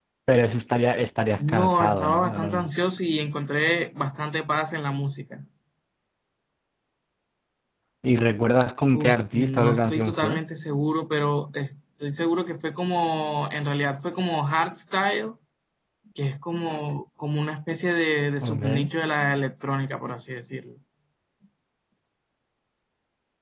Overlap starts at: 1.4 s

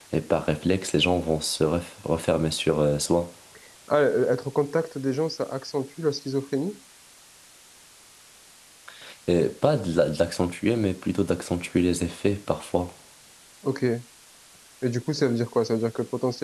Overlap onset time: none

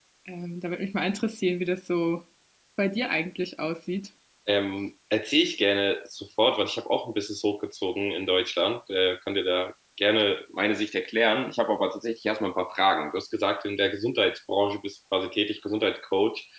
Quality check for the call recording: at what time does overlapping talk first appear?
none

